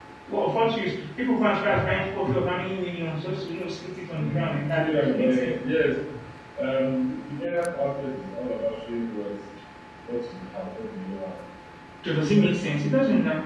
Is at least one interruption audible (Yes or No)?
Yes